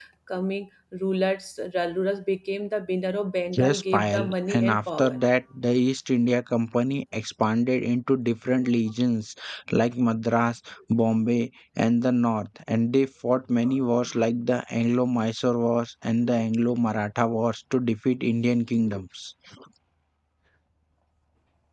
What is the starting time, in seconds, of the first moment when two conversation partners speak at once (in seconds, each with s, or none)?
3.5 s